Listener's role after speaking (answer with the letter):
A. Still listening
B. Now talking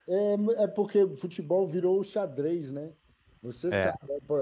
A